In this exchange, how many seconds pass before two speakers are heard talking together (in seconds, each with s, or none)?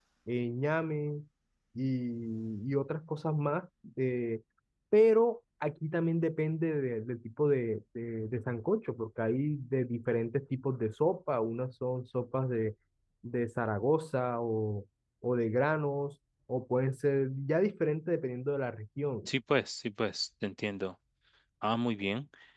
none